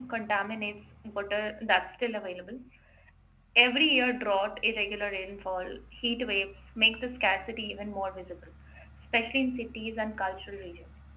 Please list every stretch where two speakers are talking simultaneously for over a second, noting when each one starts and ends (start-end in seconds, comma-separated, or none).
none